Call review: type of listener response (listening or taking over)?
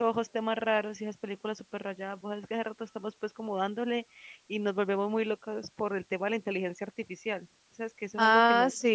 taking over